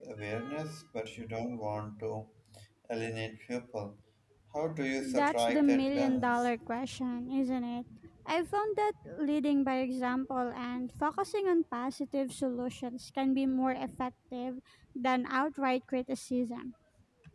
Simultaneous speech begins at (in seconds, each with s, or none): 5.0 s